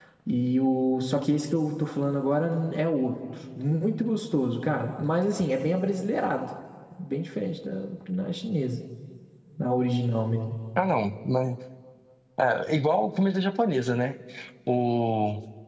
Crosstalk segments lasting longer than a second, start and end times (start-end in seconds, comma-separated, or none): none